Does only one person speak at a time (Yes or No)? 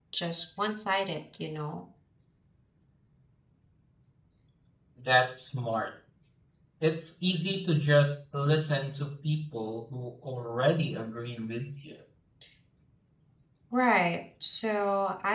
Yes